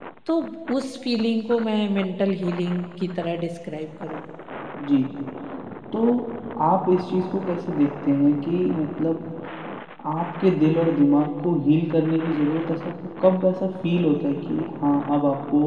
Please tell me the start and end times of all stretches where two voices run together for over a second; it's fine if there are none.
none

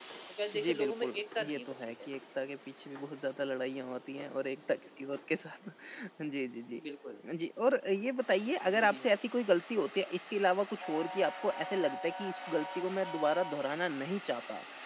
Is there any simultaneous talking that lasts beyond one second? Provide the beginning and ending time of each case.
0.5-2.1

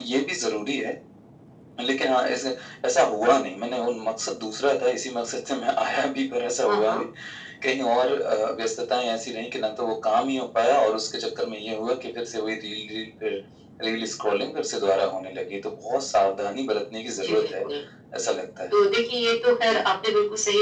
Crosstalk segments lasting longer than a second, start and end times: none

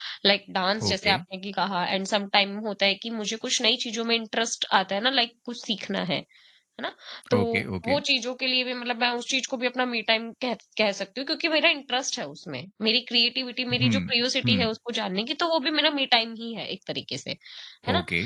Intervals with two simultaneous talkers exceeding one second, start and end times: none

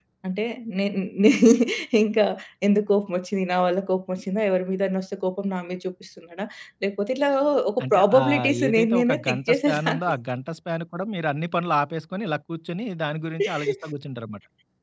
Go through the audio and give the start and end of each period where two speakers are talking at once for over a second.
7.8-10.0

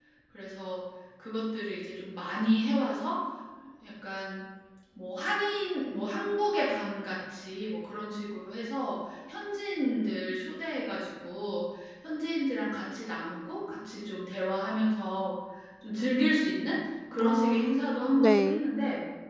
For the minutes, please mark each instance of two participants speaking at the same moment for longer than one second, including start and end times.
17.2-18.6

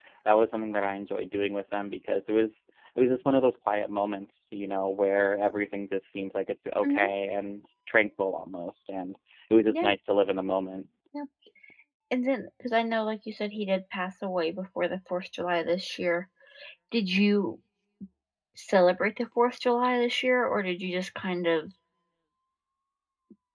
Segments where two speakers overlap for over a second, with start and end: none

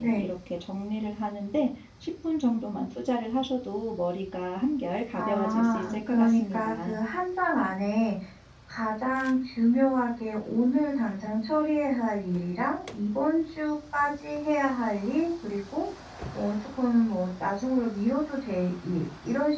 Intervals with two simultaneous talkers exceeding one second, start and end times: 5.1-7.0

